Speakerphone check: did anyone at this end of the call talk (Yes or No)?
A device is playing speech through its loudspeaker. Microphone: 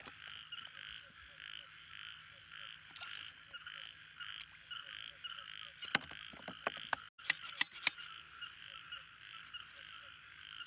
No